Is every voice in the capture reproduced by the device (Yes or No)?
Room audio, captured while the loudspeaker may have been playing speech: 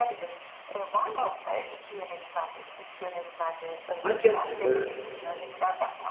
No